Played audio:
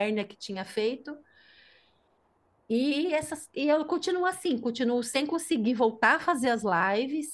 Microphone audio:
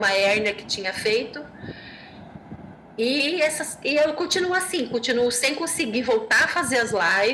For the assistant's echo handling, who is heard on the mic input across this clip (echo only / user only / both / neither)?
echo only